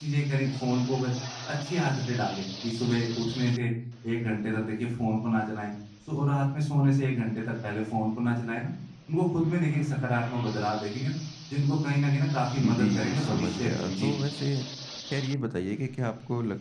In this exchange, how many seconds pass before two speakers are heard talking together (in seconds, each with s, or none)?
12.6 s